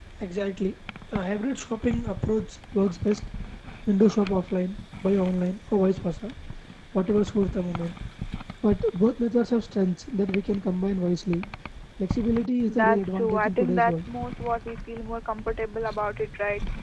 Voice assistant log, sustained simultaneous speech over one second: present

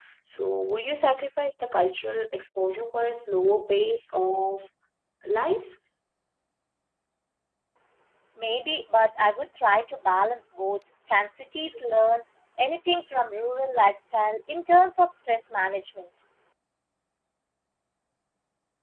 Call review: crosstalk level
none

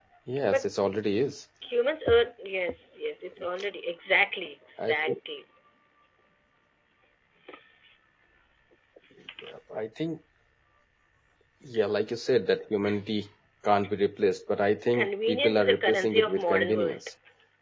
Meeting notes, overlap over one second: present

